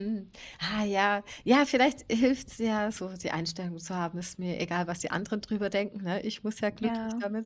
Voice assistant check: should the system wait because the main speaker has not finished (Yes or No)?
Yes